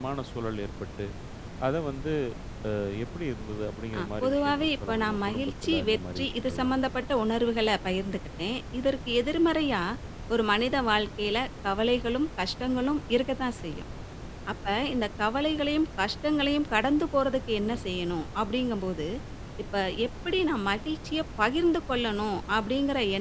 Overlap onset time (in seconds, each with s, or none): 4.0 s